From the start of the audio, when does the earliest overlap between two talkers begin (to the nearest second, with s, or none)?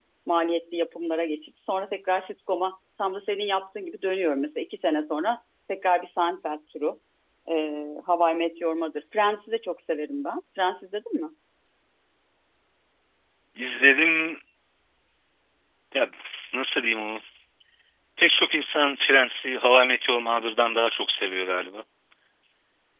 none